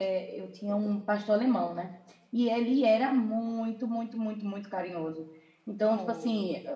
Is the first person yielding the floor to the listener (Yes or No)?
No